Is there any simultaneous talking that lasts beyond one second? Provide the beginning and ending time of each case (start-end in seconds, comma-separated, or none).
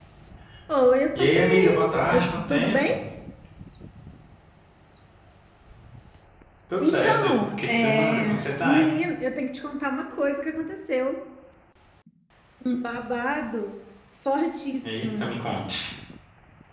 1.2-2.8, 6.8-9.0